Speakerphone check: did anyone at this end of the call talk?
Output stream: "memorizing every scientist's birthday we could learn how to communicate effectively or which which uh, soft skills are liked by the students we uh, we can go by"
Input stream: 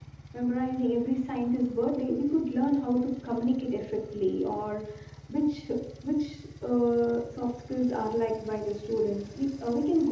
No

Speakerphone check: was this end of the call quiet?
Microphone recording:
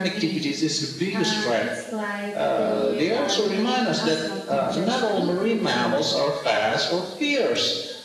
Yes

